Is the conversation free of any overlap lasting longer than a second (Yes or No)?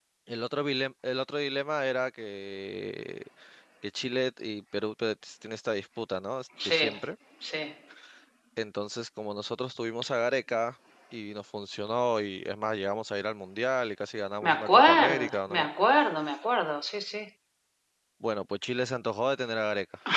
No